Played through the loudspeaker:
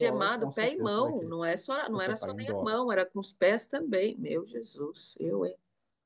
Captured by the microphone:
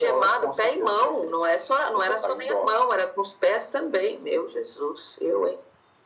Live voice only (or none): none